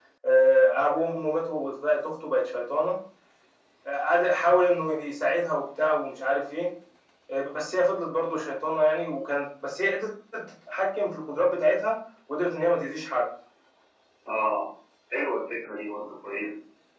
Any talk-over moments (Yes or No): No